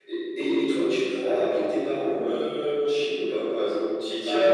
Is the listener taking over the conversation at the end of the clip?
Yes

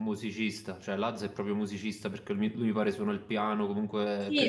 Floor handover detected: Yes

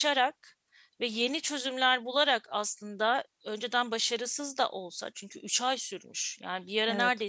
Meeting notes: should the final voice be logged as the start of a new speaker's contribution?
No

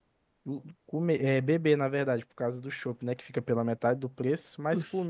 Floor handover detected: No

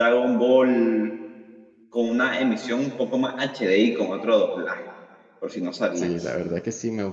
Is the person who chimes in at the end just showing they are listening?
No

